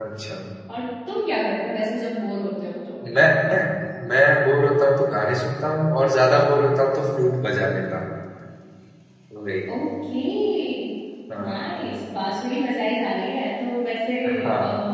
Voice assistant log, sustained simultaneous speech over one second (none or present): none